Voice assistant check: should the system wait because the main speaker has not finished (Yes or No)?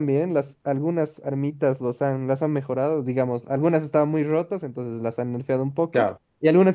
Yes